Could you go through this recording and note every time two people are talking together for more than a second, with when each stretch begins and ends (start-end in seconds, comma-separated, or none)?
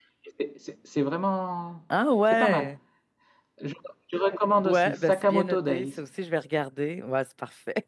4.6-6.0